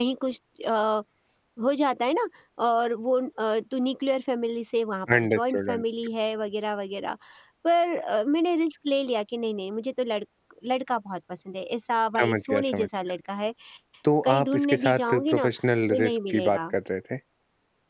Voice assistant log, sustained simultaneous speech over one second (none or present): present